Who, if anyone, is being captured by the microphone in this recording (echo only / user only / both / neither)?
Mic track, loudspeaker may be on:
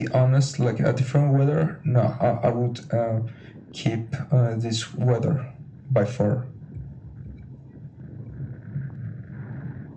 echo only